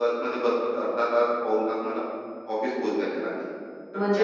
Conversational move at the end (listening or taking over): taking over